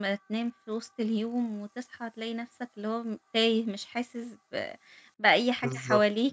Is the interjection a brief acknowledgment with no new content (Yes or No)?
No